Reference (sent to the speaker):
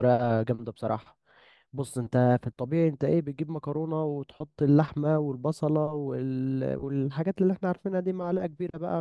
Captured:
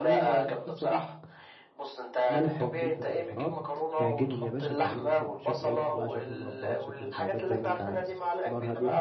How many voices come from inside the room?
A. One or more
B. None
A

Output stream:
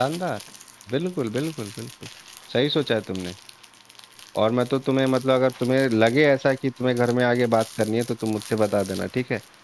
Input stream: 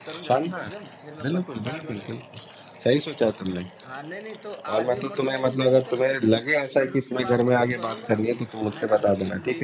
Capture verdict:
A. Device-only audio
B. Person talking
B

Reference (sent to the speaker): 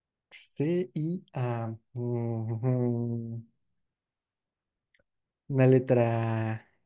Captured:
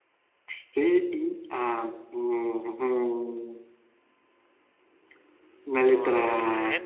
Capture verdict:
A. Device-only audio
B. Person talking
B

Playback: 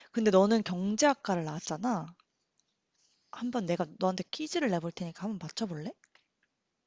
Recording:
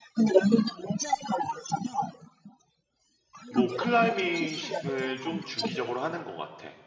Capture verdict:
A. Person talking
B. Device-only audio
A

